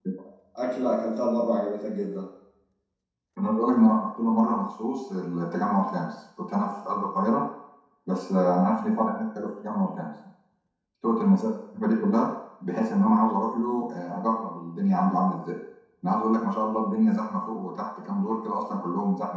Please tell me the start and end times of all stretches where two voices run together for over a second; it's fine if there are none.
none

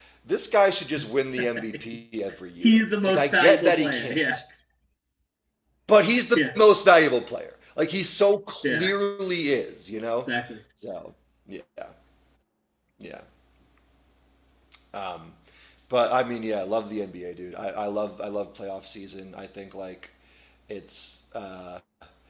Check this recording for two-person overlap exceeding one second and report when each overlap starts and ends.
2.6-4.2

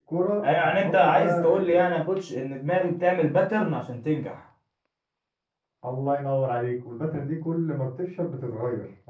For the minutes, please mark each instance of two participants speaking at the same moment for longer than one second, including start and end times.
0.6-1.8

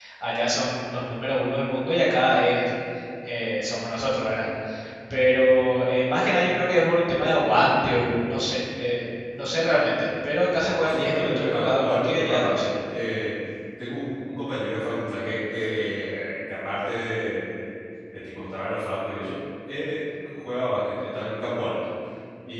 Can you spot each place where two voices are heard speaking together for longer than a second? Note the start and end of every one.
10.8-12.7

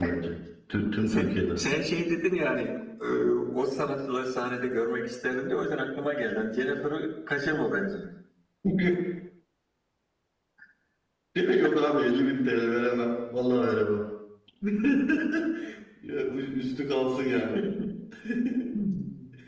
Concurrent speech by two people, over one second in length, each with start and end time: none

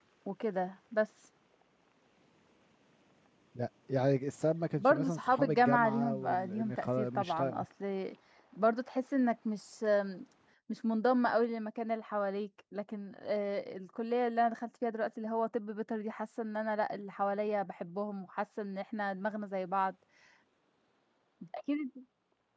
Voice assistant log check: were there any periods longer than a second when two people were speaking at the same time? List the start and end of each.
4.8-7.6

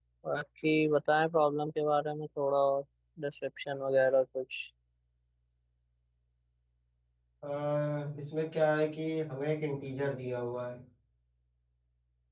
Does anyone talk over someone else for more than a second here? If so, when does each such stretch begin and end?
none

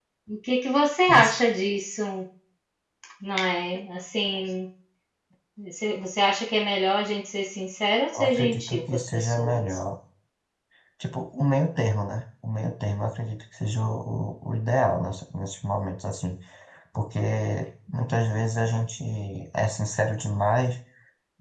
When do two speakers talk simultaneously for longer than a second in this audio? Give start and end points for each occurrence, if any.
8.1-9.8

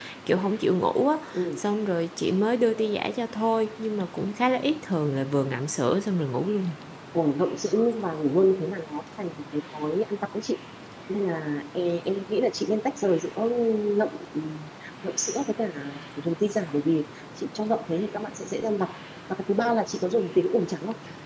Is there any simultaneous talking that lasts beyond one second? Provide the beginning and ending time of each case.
none

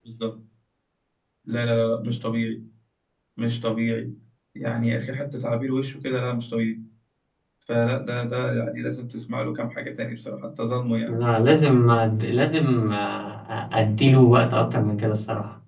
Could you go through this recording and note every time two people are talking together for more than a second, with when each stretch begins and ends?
none

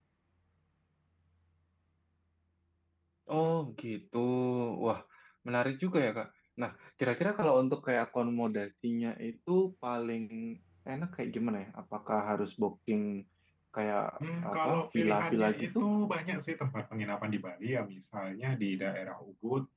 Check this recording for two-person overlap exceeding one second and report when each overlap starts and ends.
14.5-15.8

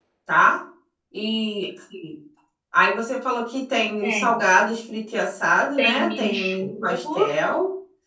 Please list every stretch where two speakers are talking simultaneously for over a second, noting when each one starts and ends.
5.8-7.3

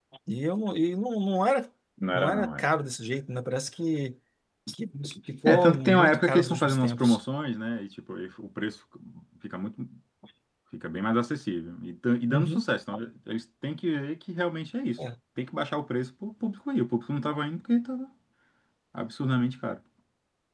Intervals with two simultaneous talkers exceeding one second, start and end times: 5.5-7.2

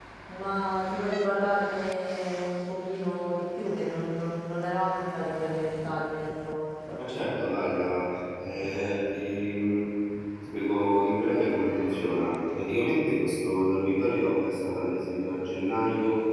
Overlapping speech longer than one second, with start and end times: none

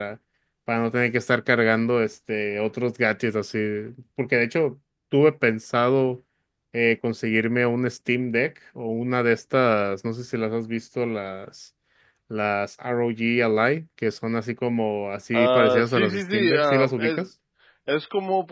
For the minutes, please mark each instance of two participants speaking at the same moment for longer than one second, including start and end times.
15.3-17.2

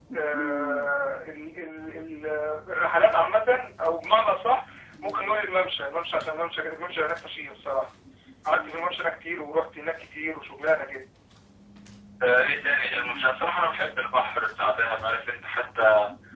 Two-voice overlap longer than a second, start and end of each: none

